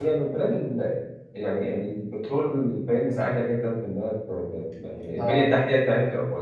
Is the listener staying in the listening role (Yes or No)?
Yes